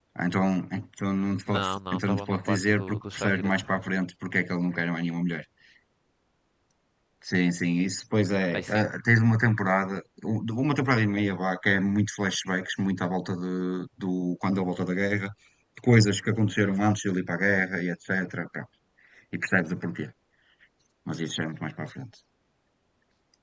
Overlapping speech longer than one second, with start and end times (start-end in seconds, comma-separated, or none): 1.5-3.6